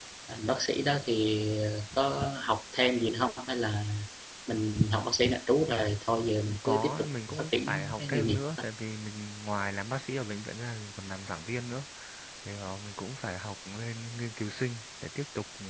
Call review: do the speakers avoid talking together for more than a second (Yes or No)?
No